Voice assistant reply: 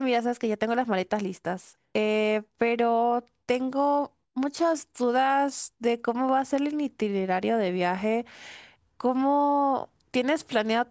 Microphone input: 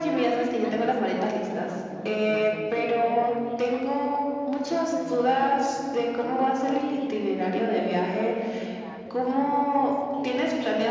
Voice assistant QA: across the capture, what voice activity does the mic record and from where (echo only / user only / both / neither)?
both